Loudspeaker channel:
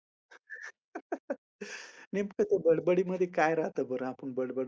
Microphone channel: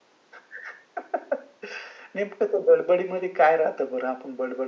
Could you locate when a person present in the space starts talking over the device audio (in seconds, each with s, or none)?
none